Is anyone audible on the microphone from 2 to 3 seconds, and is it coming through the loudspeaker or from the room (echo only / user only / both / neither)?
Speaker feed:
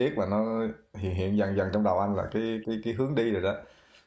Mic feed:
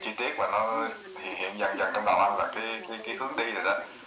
both